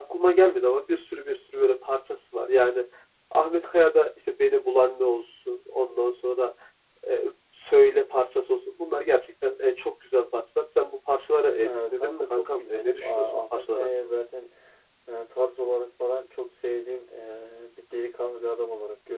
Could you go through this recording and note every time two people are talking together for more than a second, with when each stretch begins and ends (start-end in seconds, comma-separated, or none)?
11.6-14.2